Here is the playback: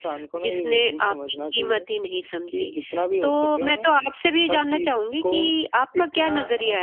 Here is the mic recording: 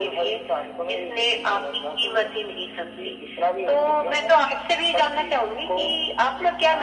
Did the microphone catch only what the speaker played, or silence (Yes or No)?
Yes